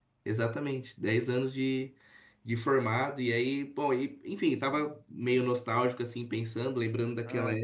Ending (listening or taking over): listening